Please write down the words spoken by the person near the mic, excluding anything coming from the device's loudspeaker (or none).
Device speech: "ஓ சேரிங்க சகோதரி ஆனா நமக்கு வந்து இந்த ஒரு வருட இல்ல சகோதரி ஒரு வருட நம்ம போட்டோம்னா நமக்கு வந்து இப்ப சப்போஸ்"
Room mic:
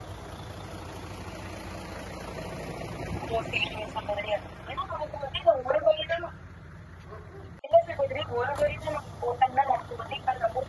none